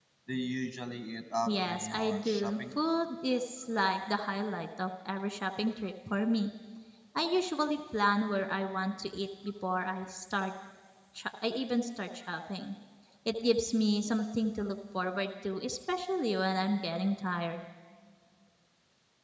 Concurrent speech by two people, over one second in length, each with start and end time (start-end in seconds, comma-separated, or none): 1.5-2.7